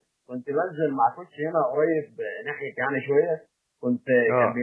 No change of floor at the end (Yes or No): Yes